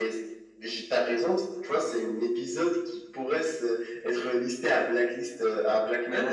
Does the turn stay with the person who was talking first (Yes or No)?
No